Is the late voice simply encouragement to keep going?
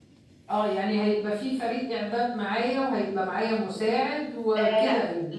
No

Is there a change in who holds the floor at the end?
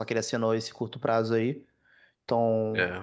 Yes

